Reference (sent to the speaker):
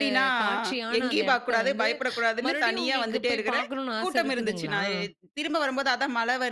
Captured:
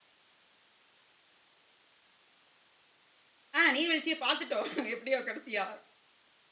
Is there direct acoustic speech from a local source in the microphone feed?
Yes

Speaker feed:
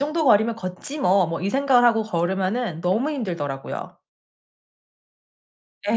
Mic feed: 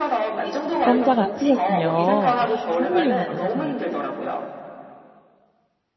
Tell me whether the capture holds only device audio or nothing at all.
No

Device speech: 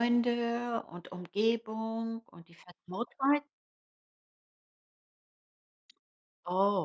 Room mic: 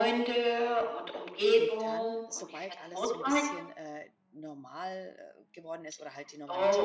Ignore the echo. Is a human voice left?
Yes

